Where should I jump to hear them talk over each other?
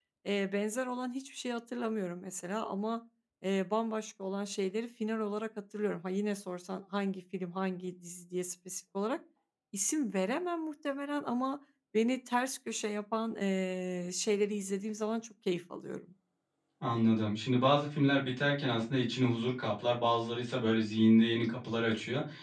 none

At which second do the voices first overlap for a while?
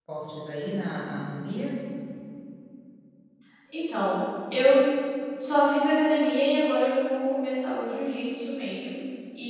none

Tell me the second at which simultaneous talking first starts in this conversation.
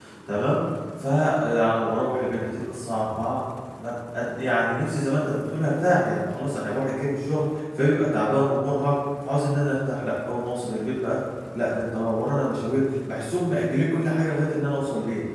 none

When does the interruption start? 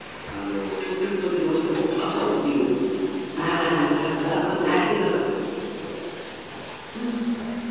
3 s

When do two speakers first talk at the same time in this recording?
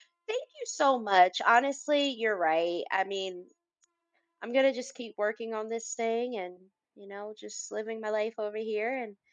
none

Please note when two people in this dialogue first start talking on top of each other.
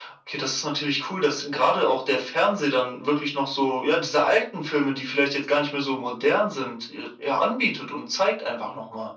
none

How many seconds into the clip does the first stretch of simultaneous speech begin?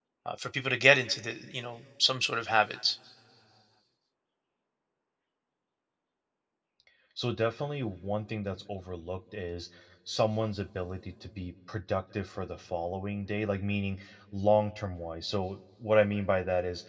none

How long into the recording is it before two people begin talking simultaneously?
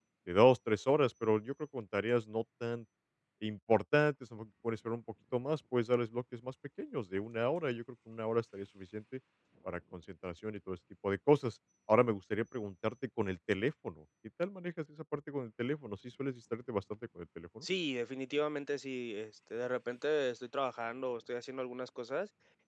none

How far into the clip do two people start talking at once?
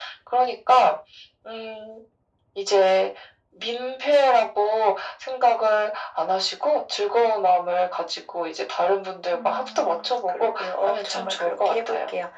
9 s

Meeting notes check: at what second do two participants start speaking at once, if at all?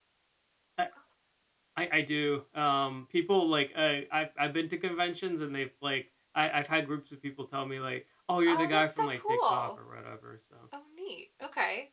8 s

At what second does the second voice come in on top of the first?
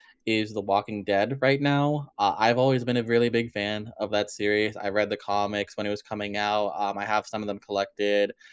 none

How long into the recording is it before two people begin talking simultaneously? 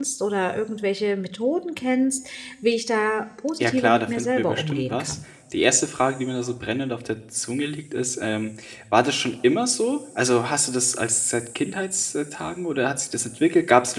4 s

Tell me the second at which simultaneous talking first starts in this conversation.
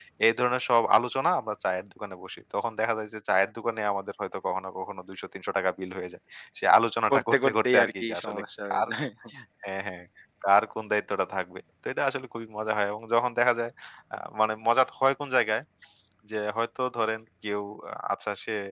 7 s

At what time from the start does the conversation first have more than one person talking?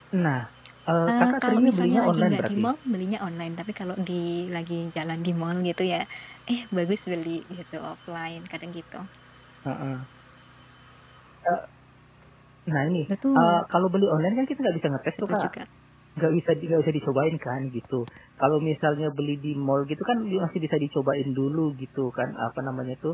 1 s

